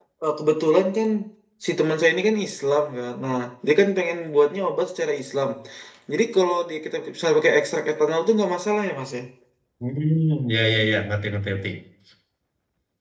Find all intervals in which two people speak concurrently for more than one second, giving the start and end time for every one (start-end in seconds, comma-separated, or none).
none